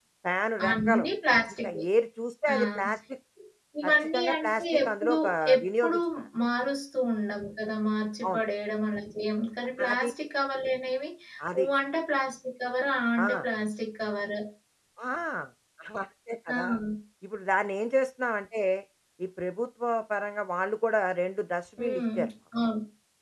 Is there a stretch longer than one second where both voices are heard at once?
Yes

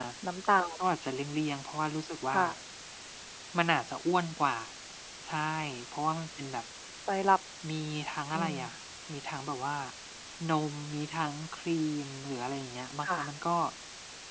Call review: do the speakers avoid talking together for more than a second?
Yes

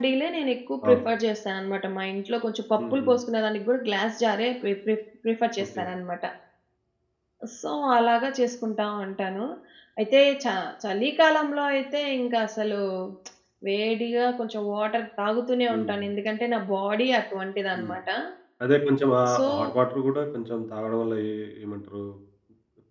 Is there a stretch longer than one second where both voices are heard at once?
No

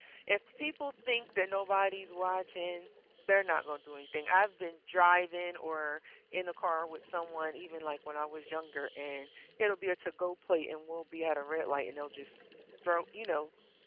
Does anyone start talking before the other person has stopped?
No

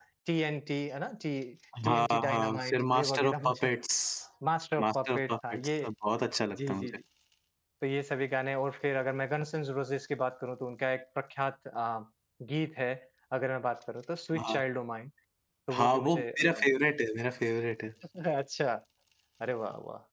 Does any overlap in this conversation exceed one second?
Yes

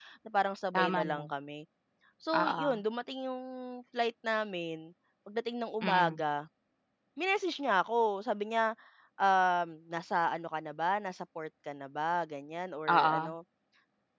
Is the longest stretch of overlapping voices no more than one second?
Yes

